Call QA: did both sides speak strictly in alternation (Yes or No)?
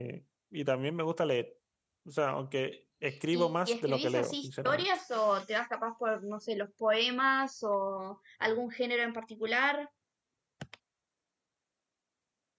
No